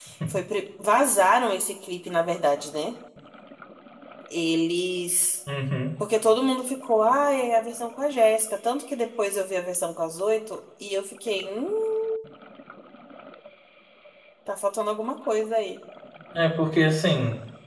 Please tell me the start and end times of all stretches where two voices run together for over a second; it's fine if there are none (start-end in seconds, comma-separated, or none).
none